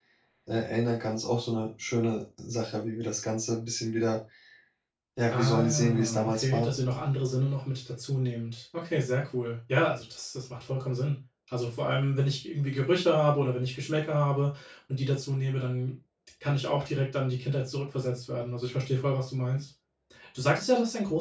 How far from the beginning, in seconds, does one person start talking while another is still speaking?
5.3 s

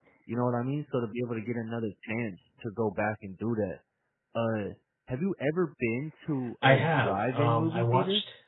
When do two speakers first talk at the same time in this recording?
6.6 s

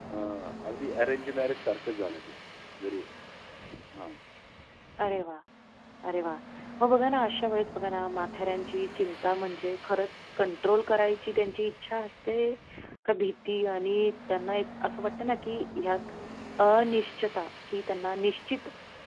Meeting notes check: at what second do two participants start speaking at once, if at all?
none

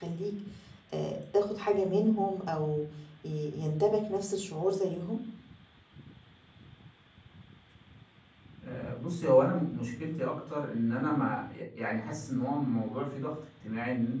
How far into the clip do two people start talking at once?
none

